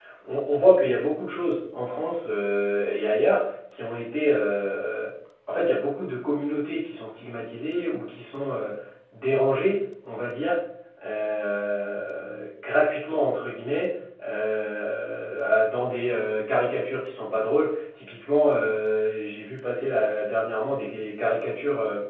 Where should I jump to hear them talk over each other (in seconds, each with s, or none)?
none